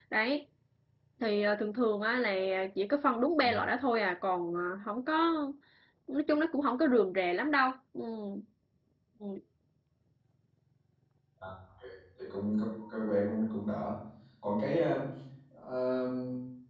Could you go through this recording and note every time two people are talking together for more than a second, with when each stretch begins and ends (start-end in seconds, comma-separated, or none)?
none